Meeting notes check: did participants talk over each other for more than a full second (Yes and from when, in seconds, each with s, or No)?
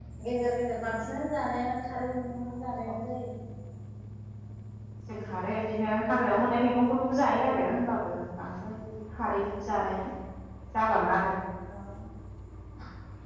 No